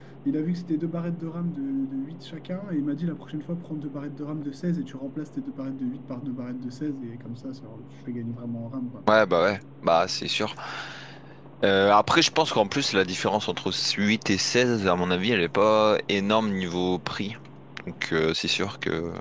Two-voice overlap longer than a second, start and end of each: none

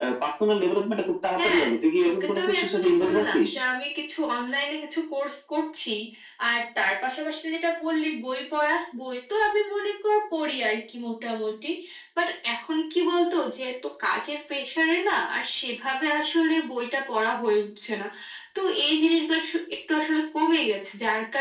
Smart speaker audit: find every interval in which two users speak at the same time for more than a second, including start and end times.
2.0-3.5

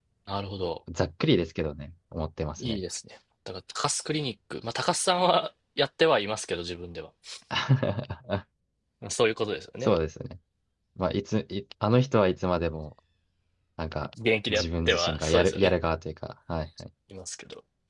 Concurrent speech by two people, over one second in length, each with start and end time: 14.5-15.7

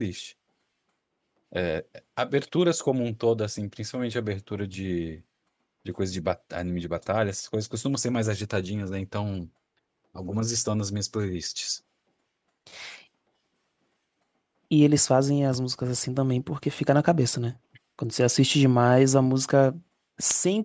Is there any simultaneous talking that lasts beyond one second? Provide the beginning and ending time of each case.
none

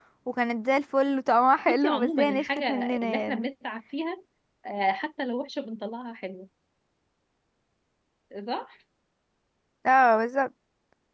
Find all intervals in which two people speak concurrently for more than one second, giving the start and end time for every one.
1.7-3.5

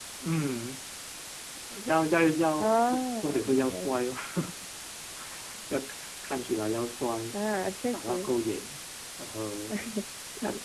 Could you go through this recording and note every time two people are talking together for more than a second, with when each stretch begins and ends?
2.6-4.0

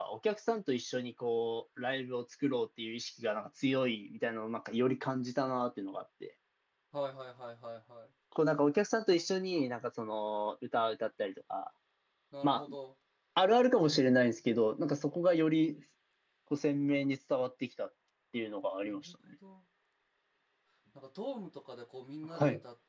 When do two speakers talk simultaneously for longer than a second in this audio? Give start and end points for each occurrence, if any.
none

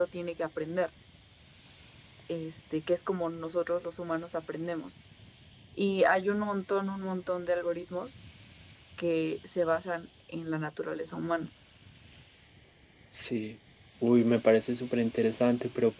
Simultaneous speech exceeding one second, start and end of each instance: none

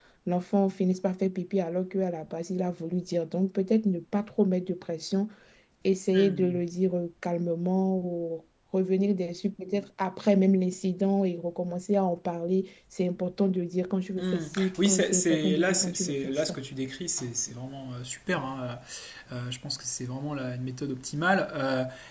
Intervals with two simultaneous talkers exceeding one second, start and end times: 14.2-16.6

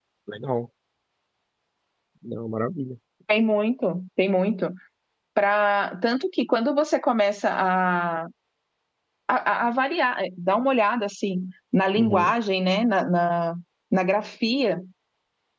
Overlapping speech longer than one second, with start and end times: none

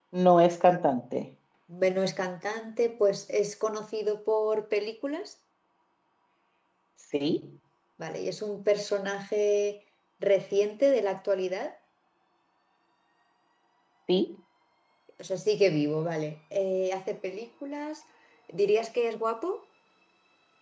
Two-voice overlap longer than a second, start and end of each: none

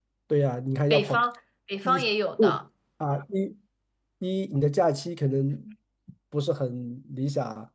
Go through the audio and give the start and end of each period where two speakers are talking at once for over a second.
none

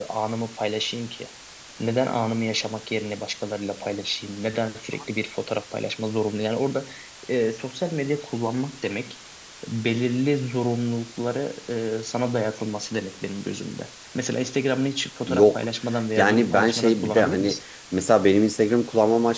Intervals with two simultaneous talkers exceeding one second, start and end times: 16.2-17.6

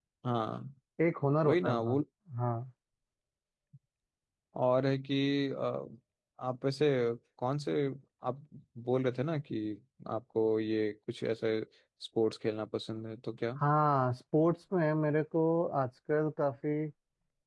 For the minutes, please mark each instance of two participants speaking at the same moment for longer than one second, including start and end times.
none

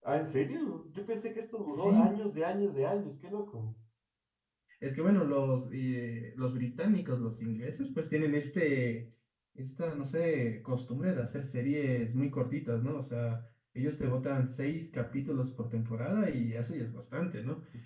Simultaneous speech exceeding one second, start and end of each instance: none

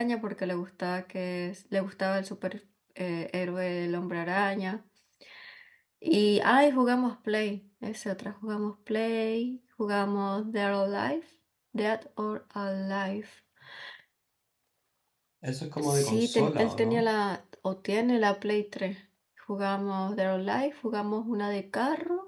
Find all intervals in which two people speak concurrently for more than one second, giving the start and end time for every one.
15.8-17.1

